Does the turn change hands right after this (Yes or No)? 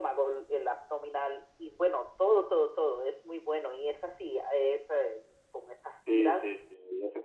Yes